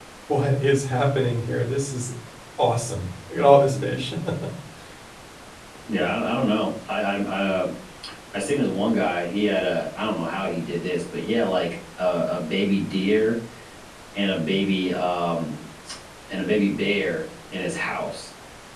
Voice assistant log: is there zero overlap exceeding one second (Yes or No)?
Yes